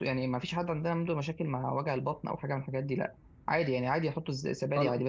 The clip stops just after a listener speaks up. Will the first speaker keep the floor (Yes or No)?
Yes